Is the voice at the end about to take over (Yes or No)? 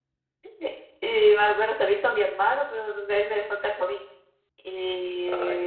No